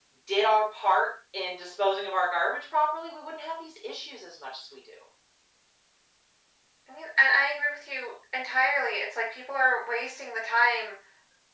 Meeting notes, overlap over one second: none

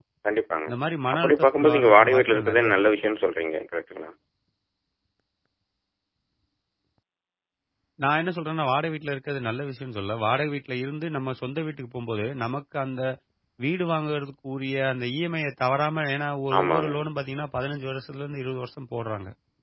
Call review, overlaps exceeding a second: present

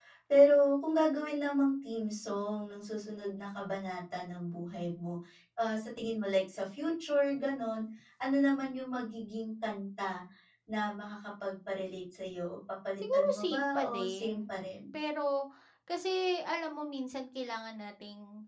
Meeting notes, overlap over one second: present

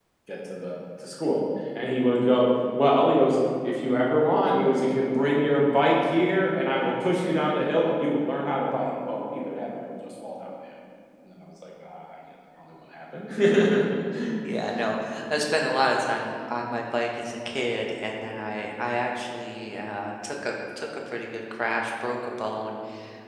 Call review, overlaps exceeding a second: none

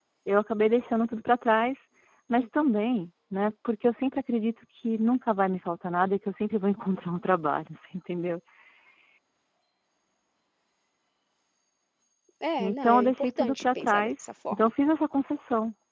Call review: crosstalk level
present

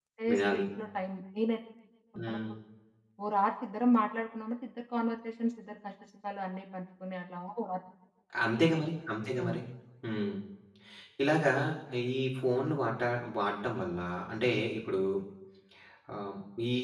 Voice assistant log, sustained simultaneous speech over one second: none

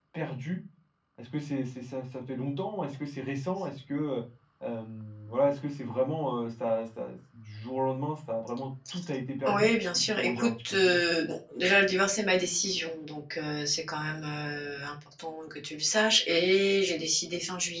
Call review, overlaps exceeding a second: present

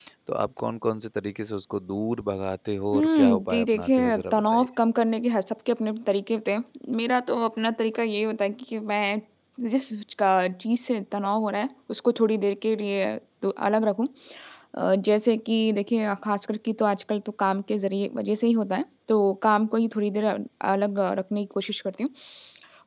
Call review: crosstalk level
present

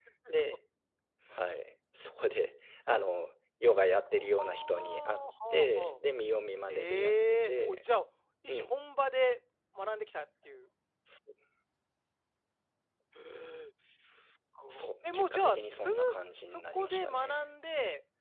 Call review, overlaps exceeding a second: present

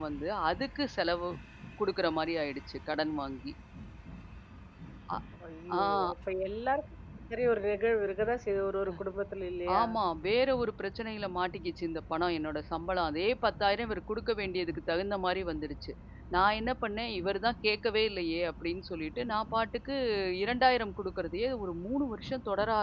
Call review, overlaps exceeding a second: none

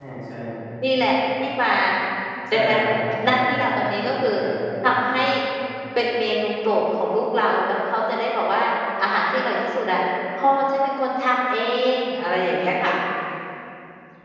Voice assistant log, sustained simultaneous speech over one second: none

